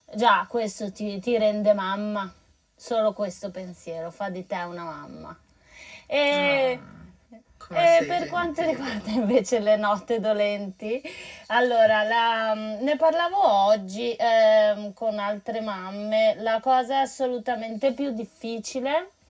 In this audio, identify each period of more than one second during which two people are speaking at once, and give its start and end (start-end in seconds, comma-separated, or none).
7.7-9.0